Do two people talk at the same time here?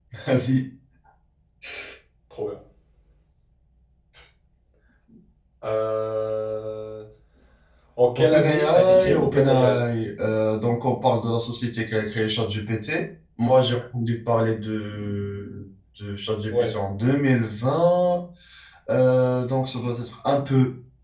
Yes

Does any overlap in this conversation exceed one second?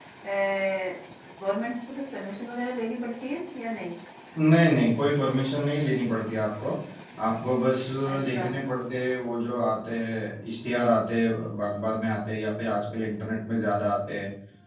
No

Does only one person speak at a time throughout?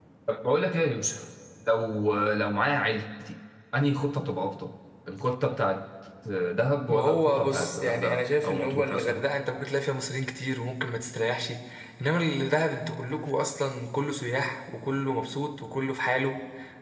No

